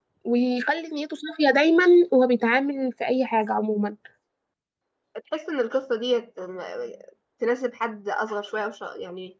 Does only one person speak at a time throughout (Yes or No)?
Yes